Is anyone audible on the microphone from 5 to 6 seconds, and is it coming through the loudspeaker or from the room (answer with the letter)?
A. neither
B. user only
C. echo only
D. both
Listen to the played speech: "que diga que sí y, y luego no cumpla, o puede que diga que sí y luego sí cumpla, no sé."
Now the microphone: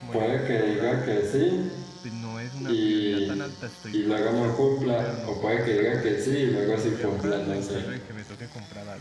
D